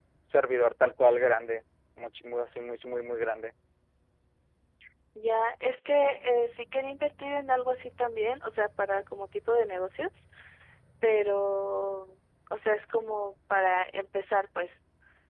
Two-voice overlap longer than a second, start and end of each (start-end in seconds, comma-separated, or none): none